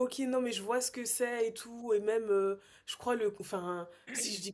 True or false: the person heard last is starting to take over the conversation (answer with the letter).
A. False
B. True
A